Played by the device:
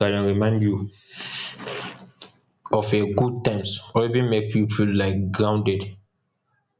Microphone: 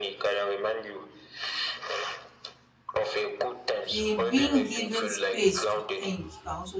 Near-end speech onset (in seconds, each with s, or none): 3.9 s